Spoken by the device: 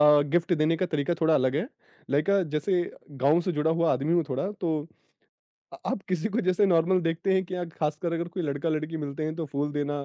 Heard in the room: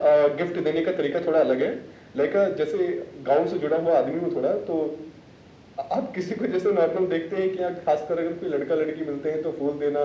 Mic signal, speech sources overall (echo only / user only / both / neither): echo only